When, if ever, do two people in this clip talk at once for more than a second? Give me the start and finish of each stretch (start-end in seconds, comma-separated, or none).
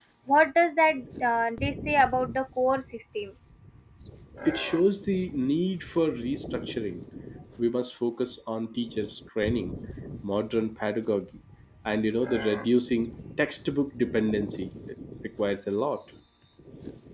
none